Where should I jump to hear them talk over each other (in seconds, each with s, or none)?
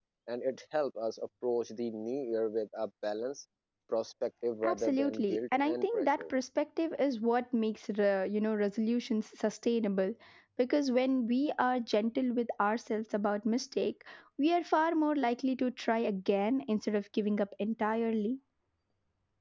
4.6 s